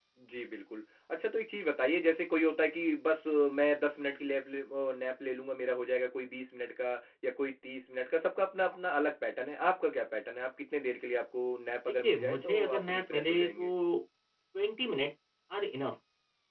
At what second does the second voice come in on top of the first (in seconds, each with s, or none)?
11.9 s